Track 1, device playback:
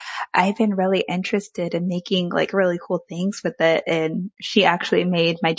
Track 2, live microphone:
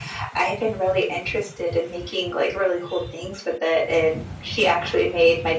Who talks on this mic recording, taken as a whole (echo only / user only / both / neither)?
echo only